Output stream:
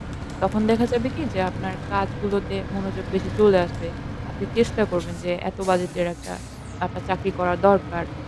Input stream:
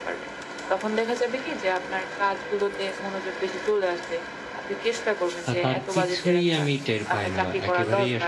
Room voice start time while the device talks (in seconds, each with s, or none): 5.5 s